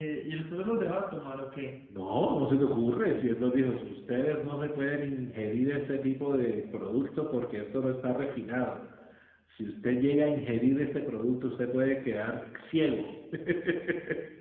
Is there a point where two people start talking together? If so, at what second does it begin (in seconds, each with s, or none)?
none